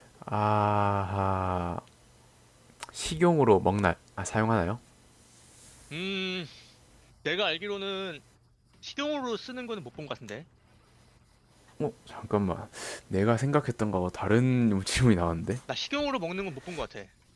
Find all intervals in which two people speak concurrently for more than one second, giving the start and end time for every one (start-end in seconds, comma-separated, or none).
none